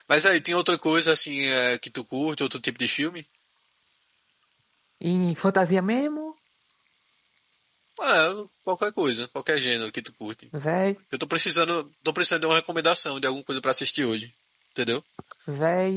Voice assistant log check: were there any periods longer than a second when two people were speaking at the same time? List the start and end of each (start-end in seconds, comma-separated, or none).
none